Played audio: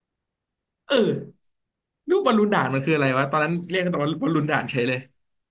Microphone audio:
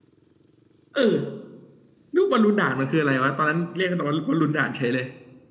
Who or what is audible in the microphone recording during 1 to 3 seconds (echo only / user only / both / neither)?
echo only